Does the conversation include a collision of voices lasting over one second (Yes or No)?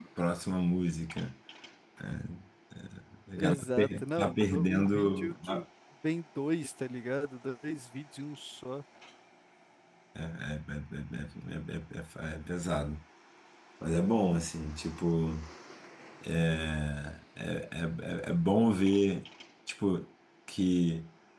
Yes